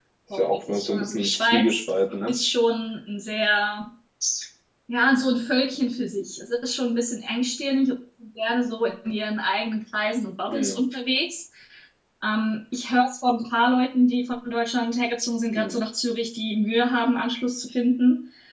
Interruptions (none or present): present